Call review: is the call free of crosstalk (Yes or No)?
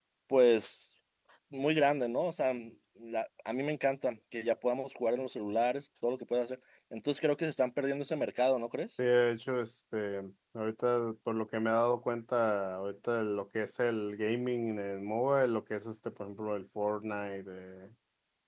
Yes